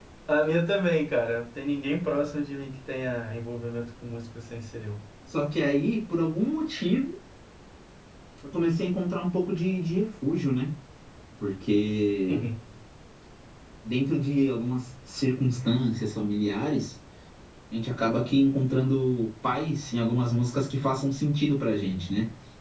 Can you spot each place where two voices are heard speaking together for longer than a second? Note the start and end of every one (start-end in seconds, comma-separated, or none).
none